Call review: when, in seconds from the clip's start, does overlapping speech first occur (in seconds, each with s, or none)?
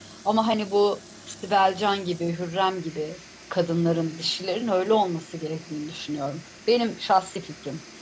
none